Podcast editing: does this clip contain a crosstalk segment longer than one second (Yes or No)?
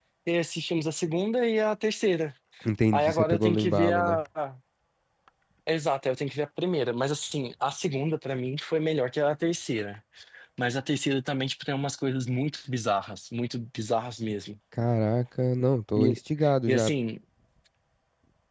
Yes